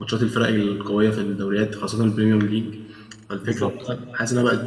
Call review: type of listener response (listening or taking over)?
listening